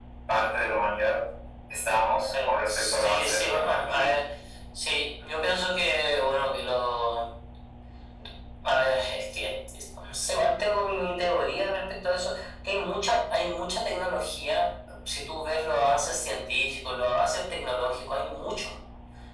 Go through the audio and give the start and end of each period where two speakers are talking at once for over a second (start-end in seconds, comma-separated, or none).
2.4-4.2